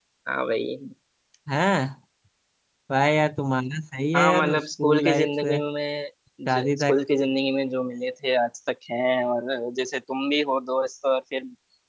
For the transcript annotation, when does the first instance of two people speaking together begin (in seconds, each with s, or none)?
4.1 s